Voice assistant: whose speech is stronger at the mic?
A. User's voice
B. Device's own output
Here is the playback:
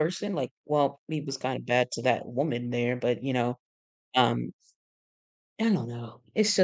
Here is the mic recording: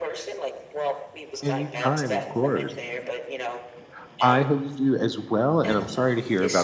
A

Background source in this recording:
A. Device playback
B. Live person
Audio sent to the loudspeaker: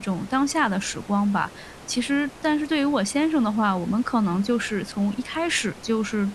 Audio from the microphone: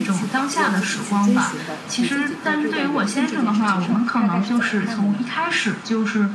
B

